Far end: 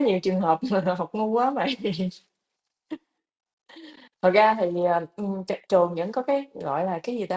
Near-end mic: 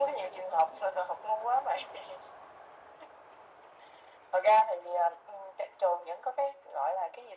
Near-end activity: none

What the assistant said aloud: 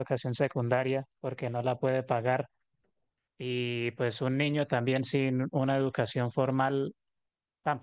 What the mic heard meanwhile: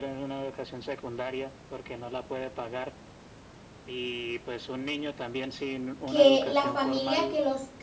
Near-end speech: present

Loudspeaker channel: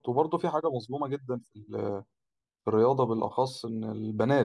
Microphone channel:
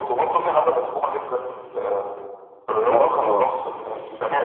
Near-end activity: present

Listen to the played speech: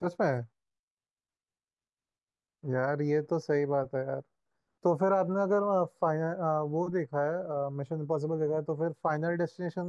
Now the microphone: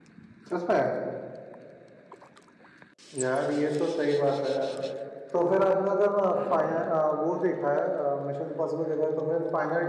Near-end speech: none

